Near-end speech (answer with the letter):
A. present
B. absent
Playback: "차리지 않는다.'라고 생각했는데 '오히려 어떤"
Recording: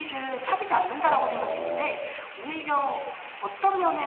A